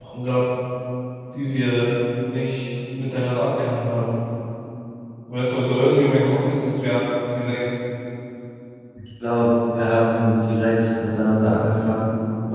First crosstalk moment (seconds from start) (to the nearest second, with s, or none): none